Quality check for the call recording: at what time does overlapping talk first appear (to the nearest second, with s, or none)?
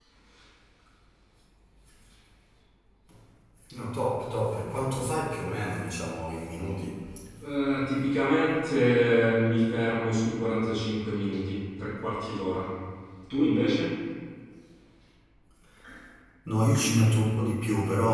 none